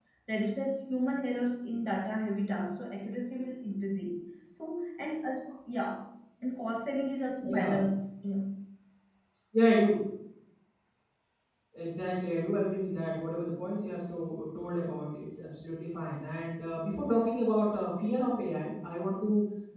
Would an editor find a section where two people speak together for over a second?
No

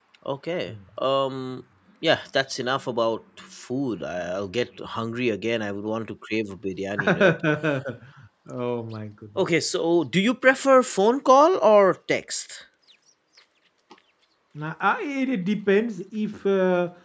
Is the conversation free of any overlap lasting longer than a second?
Yes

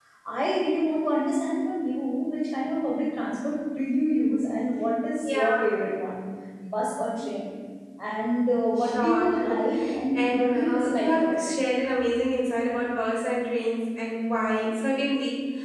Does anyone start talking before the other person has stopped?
Yes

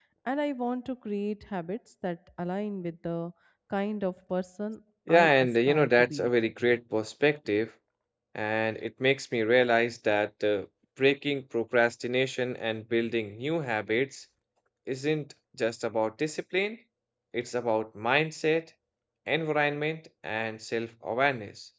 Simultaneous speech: Yes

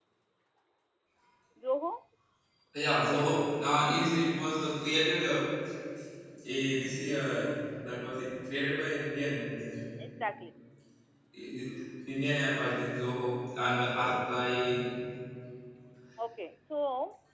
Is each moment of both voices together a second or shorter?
Yes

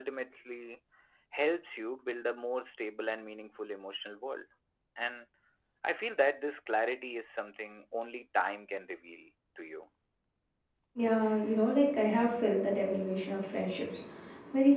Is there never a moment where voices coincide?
Yes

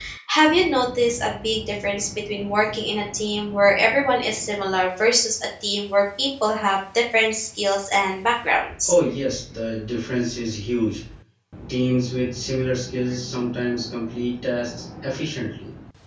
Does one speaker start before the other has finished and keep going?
No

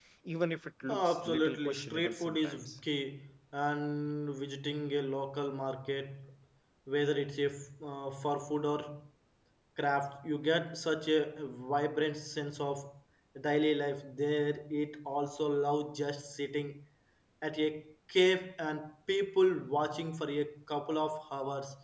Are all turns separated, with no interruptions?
No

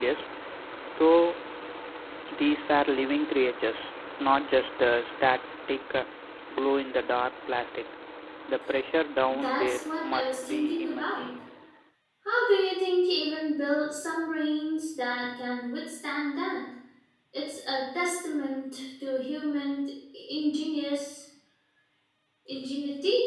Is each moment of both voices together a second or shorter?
No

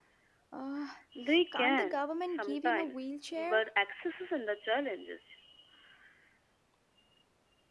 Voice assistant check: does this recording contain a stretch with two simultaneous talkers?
Yes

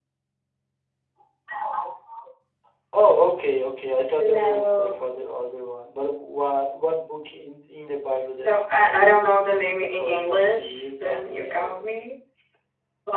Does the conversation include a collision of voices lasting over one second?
Yes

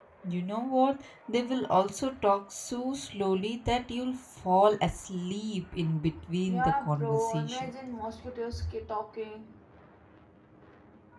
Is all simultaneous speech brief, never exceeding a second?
No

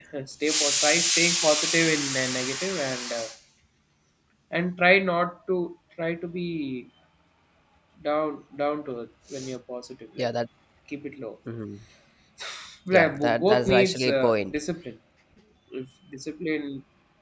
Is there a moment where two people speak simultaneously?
Yes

